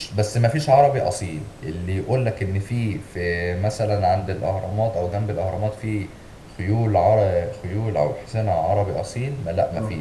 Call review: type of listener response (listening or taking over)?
listening